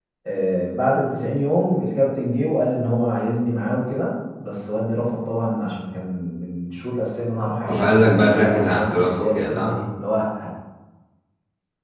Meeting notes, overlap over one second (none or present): present